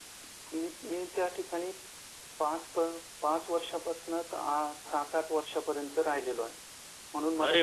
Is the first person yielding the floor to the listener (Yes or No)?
Yes